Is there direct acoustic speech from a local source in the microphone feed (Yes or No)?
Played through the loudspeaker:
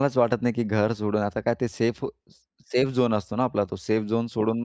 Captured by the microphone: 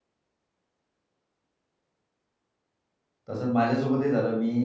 Yes